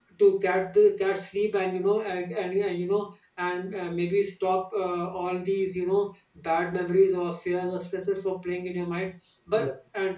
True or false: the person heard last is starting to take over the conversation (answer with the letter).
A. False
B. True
A